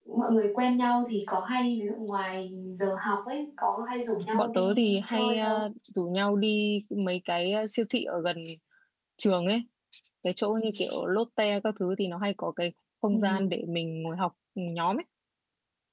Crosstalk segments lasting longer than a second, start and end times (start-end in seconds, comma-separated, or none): 4.3-5.6